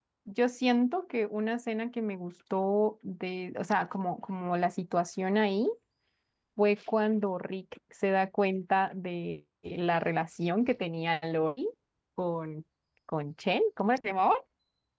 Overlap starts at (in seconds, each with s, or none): none